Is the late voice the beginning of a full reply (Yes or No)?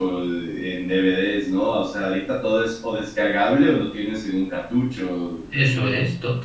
Yes